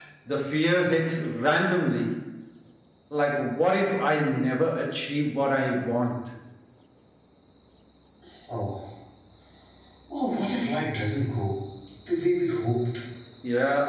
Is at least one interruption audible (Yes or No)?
No